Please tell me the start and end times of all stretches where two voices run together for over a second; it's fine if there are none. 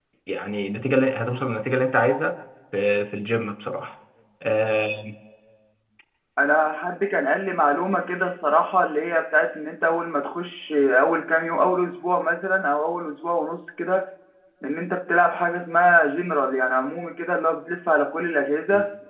none

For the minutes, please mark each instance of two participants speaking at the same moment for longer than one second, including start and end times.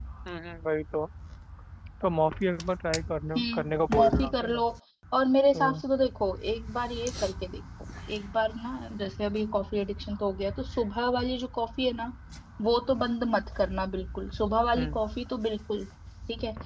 3.4-4.6

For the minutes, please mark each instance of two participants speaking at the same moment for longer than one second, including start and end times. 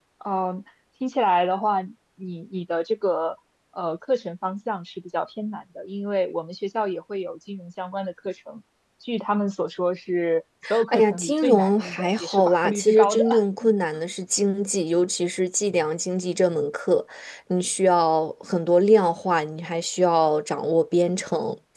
10.9-13.2

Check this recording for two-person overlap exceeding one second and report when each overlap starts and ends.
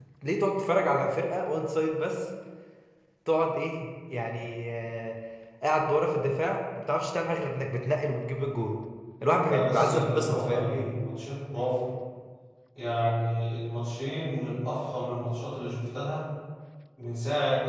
9.5-11.1

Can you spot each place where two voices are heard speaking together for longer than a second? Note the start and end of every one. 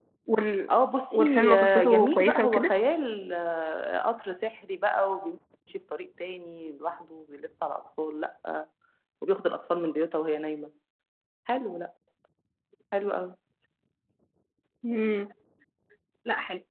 1.1-2.7

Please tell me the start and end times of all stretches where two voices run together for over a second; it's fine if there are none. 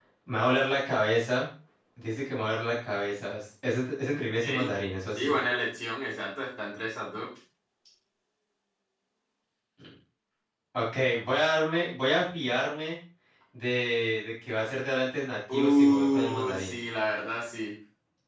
15.5-16.8

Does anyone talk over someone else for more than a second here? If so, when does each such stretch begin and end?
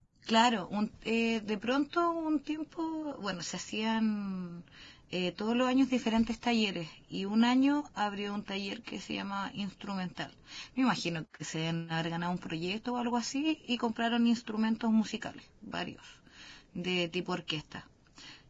none

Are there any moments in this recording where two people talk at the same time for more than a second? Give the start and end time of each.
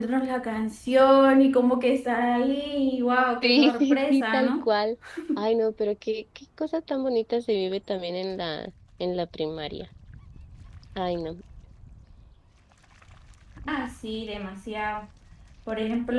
3.4-4.7

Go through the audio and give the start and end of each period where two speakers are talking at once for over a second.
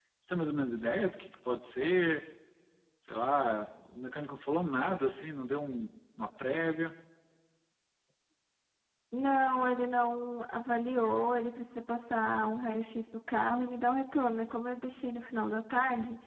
none

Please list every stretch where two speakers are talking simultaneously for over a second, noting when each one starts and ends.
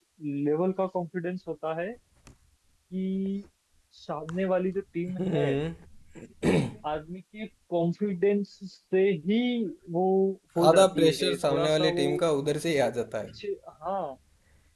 10.7-12.1

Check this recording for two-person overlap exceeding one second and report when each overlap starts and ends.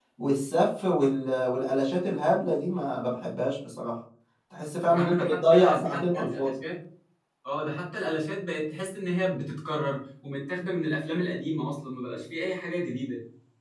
4.9-6.5

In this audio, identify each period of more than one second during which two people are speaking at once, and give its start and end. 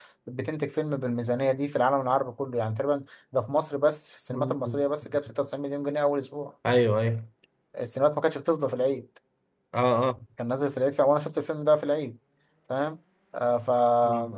none

